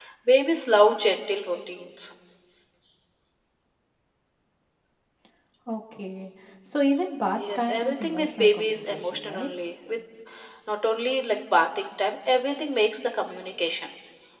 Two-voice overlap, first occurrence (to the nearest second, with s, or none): 7 s